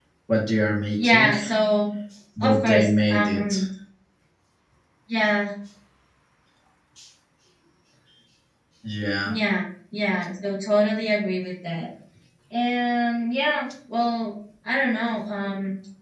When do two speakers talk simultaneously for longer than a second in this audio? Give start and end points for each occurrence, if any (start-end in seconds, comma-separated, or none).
2.4-3.6